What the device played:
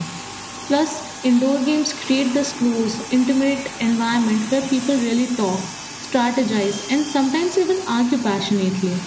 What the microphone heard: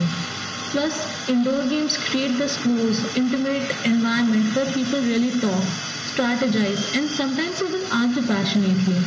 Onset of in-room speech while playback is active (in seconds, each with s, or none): none